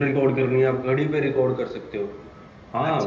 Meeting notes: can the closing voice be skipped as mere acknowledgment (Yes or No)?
No